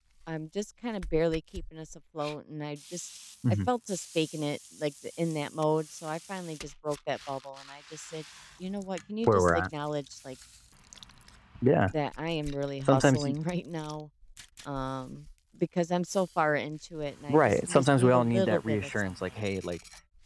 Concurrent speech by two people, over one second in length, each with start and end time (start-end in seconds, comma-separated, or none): 17.3-19.2